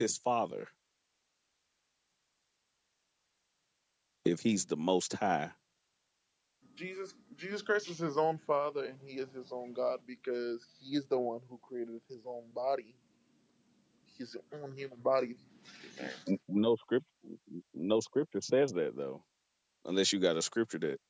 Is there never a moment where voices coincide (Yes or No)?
Yes